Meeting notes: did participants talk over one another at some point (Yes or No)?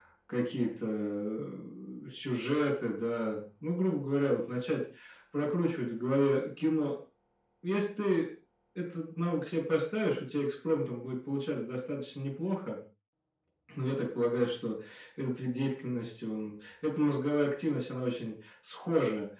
No